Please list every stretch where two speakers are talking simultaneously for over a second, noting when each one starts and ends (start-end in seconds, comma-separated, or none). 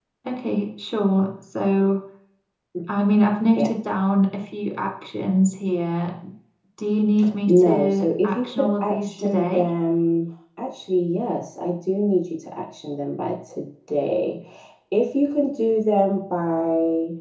7.5-9.6